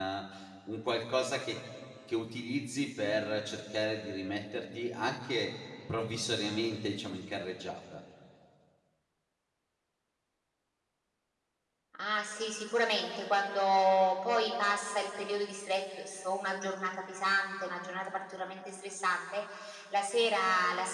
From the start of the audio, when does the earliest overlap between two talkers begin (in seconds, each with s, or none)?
none